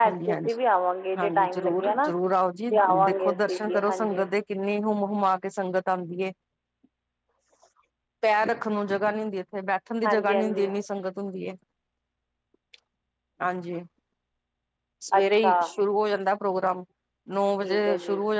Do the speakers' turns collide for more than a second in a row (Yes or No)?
Yes